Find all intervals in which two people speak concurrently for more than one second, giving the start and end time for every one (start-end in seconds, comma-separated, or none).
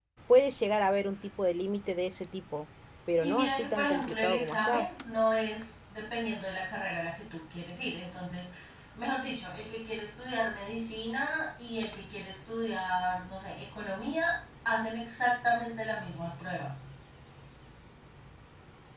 3.2-4.9